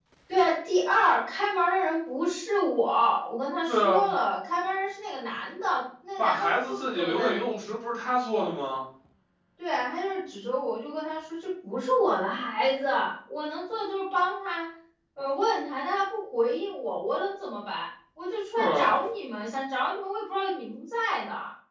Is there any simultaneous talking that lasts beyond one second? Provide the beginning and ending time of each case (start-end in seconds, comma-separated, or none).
6.2-7.5